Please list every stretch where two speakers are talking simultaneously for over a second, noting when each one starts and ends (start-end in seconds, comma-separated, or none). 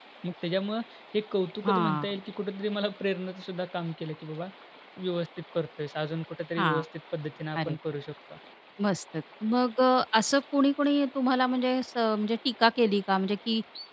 none